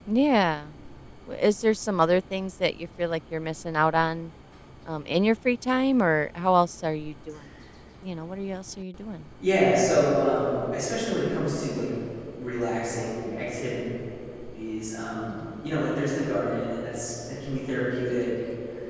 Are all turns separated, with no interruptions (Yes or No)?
Yes